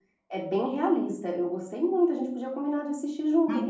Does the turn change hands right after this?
Yes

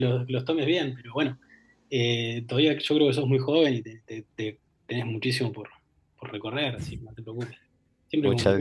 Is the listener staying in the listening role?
No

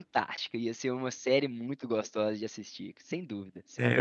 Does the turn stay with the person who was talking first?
No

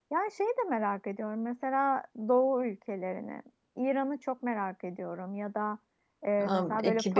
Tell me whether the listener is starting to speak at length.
No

